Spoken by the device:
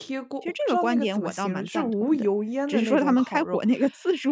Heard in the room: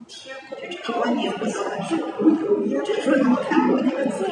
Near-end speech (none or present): present